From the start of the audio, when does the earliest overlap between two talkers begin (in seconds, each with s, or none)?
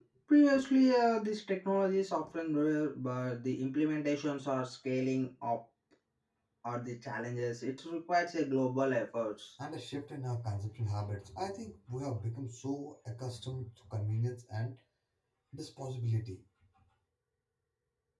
none